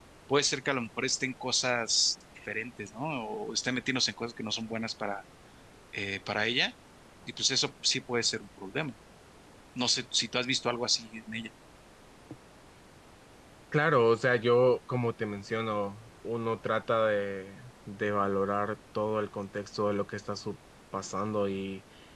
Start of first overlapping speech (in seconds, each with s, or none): none